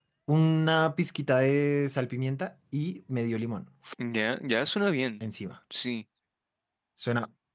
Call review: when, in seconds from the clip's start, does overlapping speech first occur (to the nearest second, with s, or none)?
none